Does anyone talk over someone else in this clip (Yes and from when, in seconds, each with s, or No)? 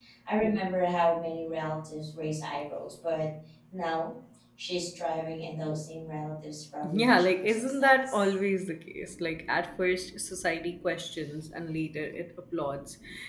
Yes, from 6.8 s